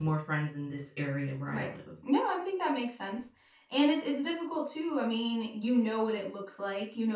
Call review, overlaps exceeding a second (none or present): none